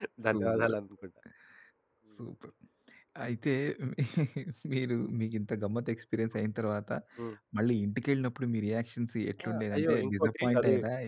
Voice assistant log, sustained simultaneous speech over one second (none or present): present